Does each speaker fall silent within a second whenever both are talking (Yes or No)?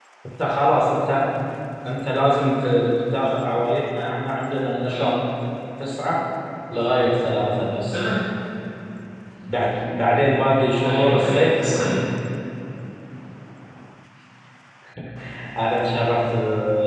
No